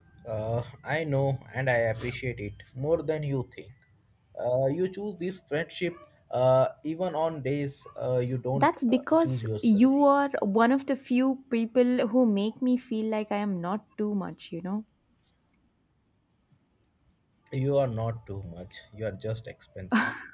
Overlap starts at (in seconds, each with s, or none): 8.6 s